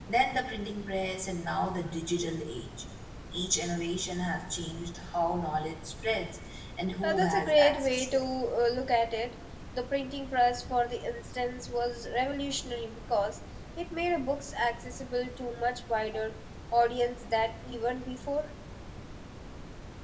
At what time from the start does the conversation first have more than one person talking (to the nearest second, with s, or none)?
7 s